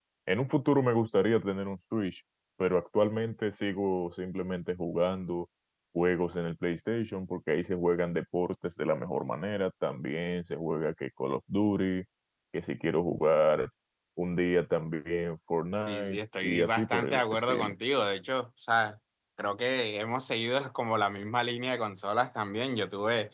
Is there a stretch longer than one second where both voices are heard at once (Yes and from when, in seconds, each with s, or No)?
Yes, from 15.9 s